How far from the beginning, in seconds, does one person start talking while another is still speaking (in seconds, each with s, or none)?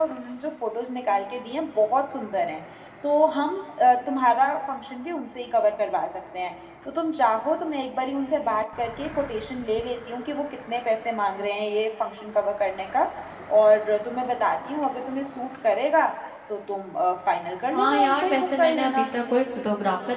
17.7 s